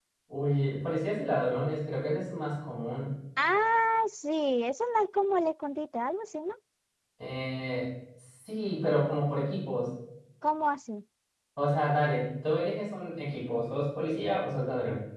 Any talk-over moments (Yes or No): No